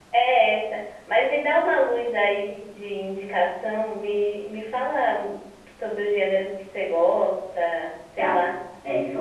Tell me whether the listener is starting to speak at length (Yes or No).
Yes